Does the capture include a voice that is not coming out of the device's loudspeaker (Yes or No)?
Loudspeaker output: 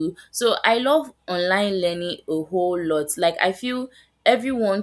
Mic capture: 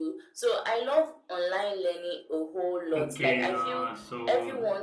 Yes